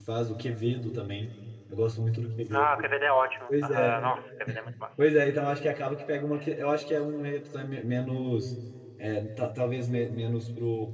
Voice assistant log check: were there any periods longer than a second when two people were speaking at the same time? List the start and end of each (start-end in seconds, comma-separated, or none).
none